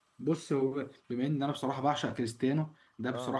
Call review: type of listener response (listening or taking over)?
listening